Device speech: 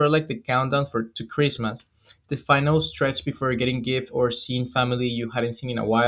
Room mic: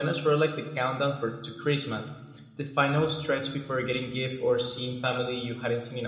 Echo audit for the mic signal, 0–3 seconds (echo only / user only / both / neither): echo only